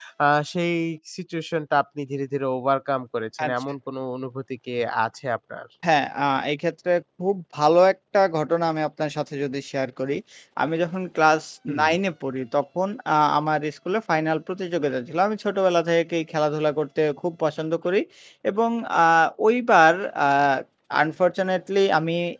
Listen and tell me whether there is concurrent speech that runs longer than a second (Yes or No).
No